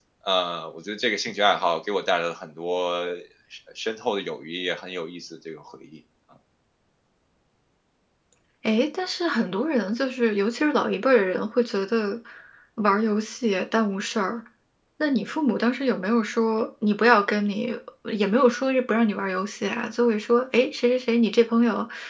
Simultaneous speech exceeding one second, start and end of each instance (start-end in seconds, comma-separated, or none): none